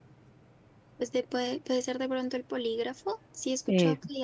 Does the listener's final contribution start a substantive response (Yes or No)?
No